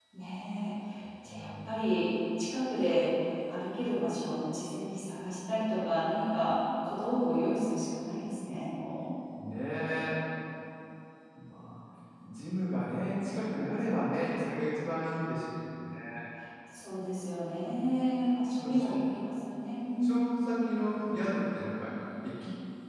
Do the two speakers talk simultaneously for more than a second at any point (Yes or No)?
No